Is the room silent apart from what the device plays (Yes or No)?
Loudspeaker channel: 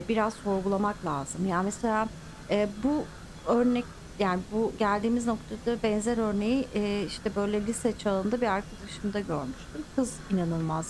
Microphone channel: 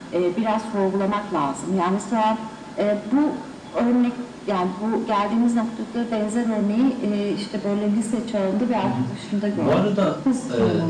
No